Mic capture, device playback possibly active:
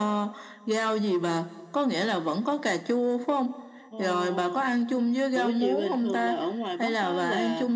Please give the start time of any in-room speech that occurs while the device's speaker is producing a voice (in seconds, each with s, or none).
3.9 s